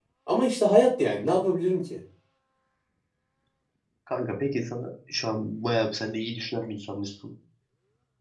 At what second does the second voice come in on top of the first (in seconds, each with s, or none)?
none